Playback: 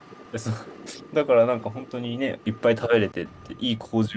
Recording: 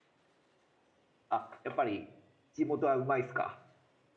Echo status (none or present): none